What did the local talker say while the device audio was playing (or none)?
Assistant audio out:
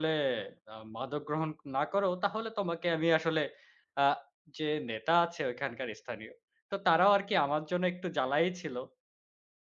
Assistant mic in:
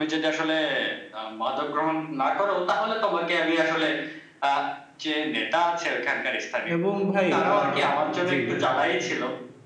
এবং ভাই আ জি,